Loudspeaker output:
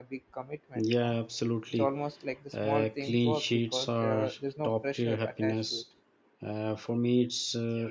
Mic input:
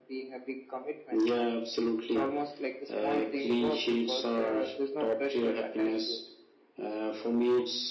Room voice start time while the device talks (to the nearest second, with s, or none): none